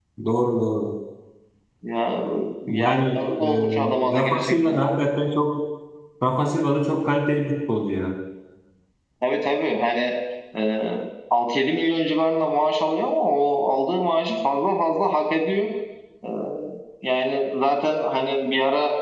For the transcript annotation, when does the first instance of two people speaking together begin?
3 s

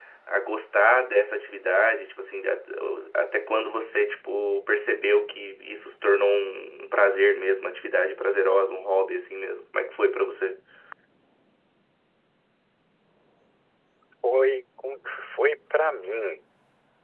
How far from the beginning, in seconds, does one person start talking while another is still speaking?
none

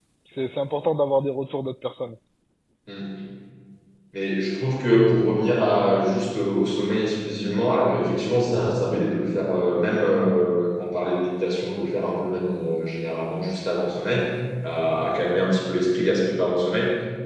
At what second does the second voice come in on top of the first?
none

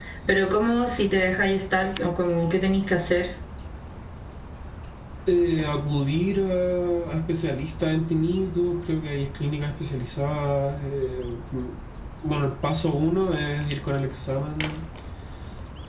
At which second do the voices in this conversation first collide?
none

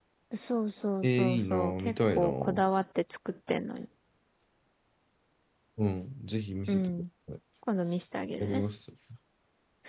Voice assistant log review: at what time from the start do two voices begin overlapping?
1 s

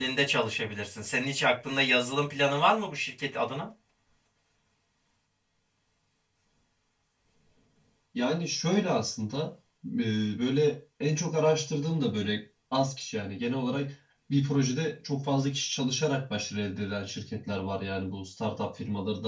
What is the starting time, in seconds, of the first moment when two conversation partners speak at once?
none

